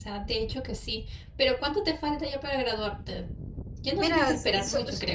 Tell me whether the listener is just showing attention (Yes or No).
No